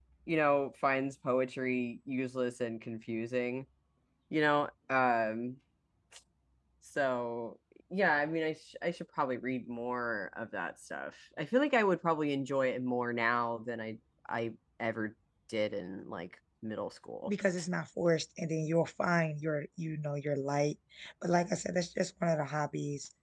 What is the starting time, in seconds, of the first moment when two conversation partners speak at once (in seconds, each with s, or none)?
none